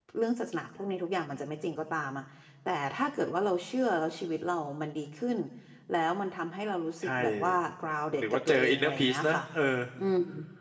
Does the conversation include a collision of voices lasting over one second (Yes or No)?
Yes